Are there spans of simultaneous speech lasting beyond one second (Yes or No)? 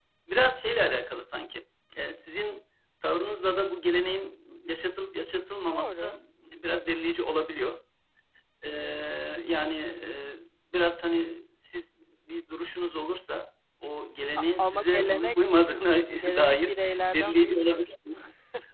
Yes